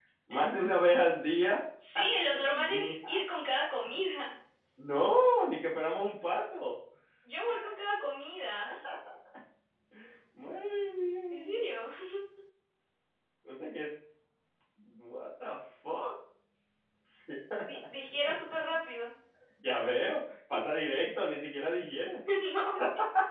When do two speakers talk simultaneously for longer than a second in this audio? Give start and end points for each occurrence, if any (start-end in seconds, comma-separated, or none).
1.9-3.2